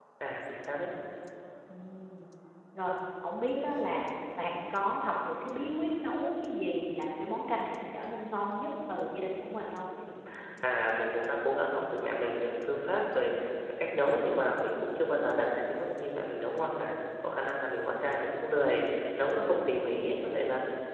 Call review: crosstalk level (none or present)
none